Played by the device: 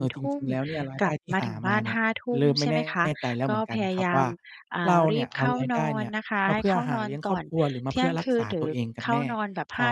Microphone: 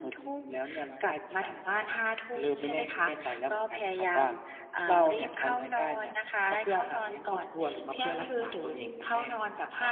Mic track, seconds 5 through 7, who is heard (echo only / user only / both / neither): echo only